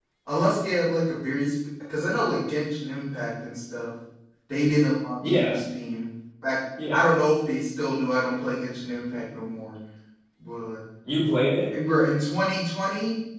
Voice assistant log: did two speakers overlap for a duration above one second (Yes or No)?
No